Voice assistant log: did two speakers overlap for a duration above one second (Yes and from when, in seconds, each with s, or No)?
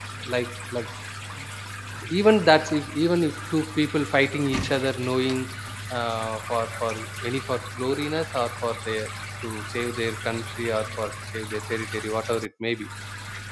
No